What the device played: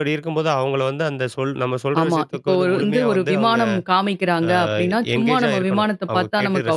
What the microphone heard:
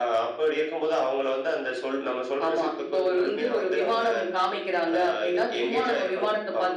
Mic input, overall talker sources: echo only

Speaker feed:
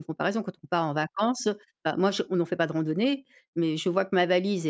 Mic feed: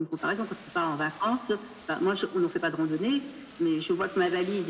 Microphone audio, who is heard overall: echo only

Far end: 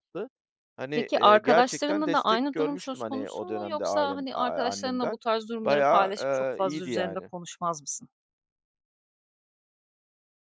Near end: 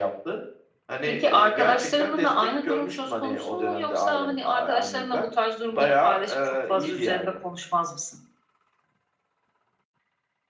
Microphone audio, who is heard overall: echo only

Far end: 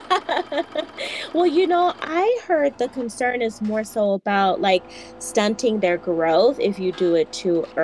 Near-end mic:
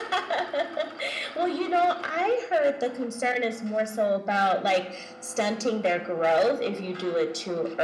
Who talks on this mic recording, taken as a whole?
echo only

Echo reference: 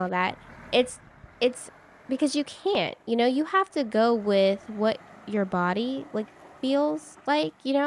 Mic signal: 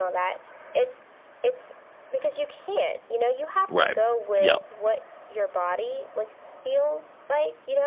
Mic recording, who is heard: both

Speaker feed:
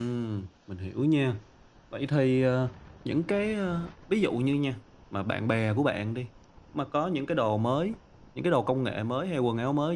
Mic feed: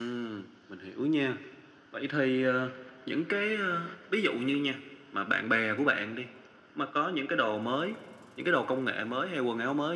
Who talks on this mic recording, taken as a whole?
echo only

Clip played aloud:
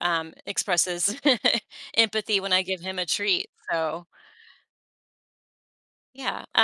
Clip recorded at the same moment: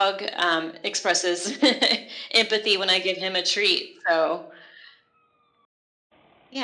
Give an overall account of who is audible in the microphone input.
echo only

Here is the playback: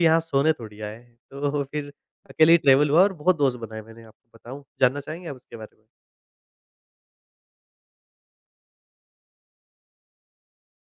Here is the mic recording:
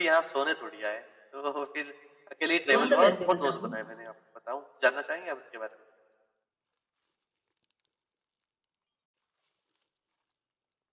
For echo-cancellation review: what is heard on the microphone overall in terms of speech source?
both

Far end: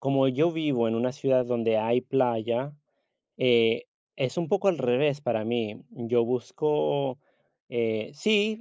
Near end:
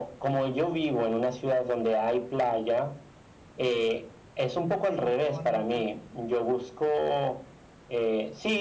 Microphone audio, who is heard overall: both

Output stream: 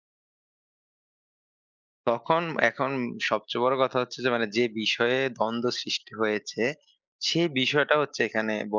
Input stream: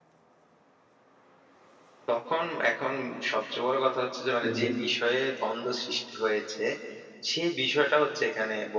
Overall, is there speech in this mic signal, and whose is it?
both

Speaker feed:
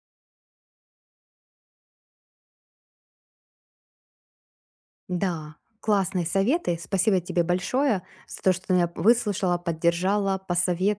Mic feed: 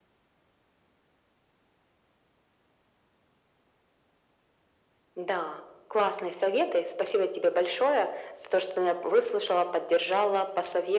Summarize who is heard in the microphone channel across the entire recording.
echo only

